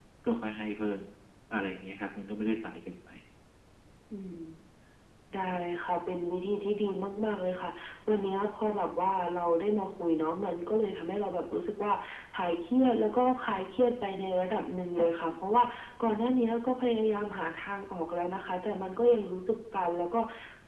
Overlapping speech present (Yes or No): No